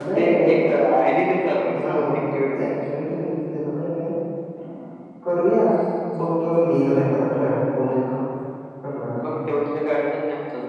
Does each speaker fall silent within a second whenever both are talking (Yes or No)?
Yes